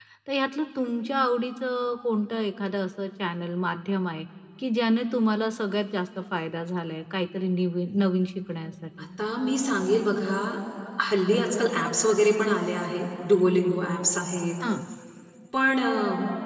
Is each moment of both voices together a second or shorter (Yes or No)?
Yes